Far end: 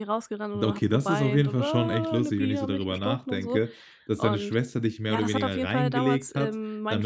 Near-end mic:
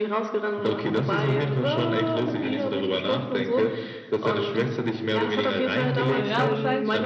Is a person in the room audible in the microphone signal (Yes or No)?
Yes